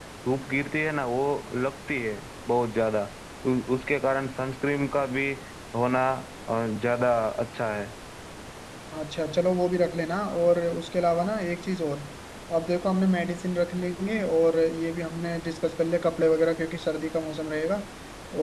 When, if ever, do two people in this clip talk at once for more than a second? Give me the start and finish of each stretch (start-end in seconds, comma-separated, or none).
none